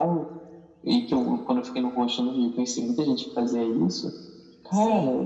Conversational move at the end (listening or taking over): listening